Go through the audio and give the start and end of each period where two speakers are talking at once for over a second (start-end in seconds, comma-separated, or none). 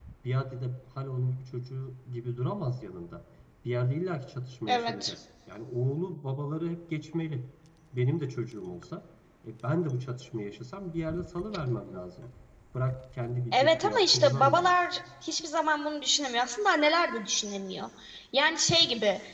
13.5-14.7